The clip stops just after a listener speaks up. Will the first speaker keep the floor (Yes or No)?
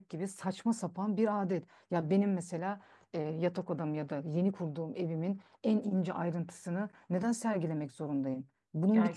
Yes